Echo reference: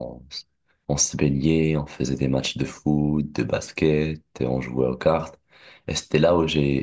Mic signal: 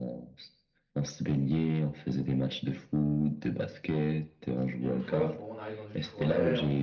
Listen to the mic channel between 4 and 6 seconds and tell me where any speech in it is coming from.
both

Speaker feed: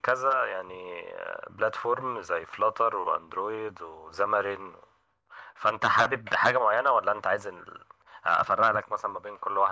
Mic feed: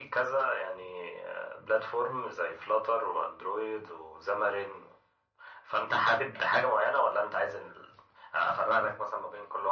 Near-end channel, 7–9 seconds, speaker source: echo only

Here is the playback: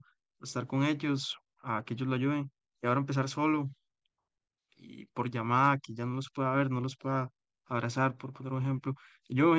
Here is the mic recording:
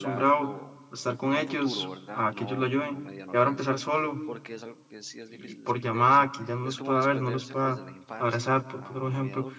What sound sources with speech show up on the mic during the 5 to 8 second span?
both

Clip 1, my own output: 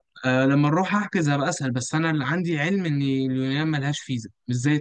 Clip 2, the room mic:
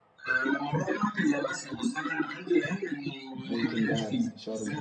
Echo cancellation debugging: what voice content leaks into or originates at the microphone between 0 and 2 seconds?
echo only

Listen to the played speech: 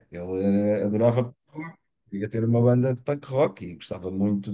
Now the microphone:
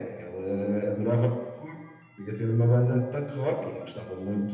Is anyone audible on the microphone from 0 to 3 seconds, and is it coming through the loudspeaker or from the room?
echo only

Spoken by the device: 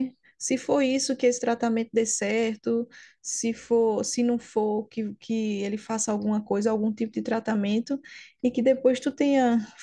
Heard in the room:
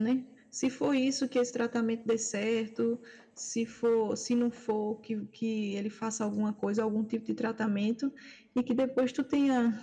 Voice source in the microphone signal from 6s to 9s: echo only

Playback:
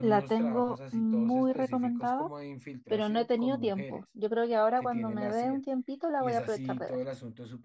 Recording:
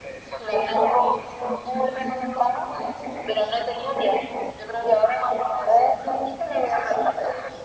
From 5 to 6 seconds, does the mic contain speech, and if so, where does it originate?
echo only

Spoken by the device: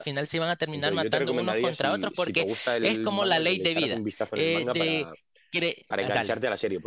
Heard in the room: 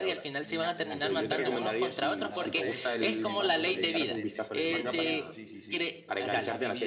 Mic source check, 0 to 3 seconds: both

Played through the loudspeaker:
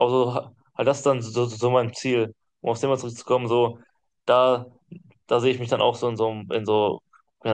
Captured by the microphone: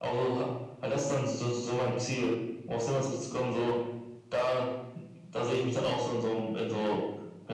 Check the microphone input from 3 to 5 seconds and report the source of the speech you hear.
echo only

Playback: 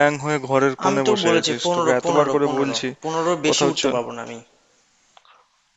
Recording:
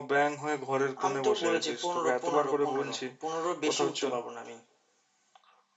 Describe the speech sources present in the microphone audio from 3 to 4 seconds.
echo only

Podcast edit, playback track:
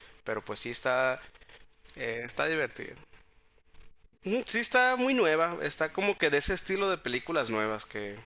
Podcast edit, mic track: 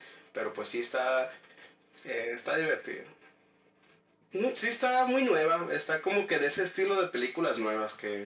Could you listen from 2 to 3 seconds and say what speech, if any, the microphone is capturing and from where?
echo only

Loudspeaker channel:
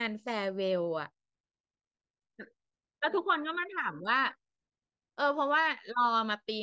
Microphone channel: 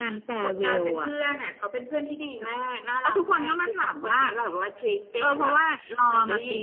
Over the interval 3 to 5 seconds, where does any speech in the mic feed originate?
both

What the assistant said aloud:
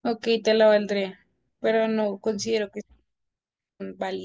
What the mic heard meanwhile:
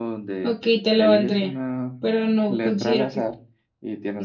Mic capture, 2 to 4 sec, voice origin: both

